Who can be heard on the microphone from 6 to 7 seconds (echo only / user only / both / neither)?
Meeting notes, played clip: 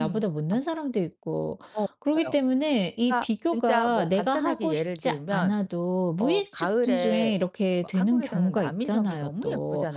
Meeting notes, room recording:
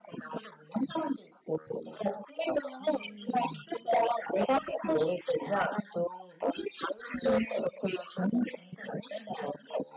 echo only